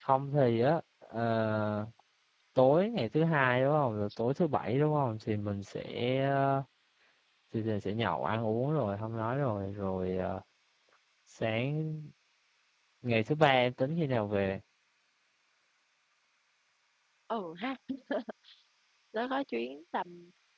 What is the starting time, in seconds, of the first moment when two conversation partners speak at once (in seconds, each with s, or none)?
none